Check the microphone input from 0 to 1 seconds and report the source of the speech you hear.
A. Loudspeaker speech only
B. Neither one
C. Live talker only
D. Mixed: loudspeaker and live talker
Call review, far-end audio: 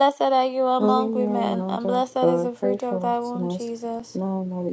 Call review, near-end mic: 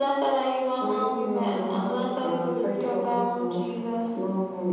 A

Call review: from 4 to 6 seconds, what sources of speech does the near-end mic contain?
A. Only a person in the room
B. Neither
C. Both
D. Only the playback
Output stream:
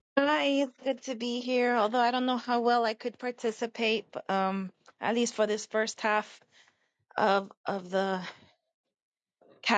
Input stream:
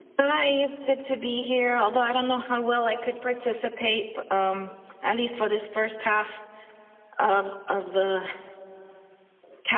D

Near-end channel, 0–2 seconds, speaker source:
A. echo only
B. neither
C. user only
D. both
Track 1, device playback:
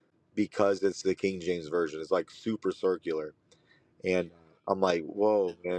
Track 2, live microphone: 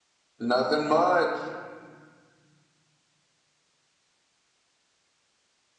C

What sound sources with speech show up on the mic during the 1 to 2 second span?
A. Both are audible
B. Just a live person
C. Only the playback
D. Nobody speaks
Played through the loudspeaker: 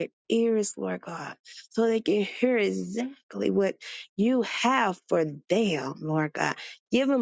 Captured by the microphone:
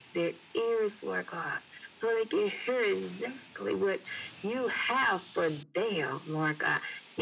C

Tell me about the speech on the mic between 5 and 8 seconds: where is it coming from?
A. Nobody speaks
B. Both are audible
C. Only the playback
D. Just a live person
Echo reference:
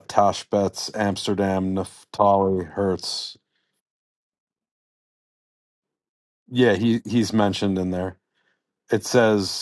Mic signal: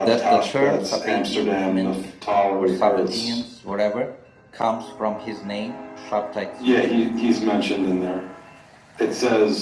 B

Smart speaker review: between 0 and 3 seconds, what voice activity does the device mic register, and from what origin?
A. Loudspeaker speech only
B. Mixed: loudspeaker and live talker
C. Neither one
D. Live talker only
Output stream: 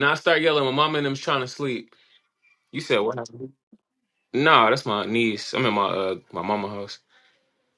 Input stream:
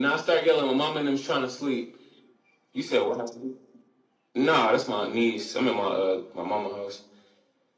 A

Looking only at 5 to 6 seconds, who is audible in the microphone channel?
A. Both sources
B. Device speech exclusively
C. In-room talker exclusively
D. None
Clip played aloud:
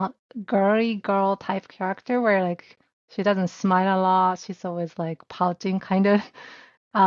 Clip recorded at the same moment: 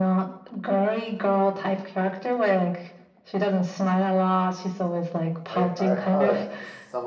A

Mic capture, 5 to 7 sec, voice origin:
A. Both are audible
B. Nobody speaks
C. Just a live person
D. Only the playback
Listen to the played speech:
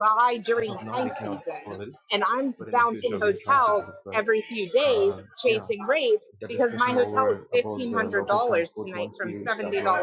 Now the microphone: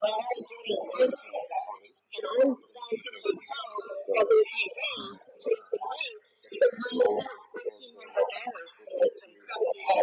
D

